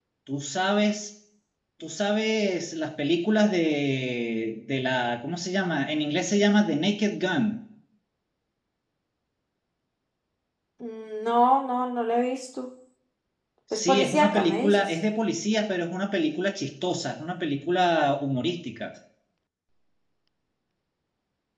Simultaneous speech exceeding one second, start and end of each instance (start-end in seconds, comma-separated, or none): 13.7-15.0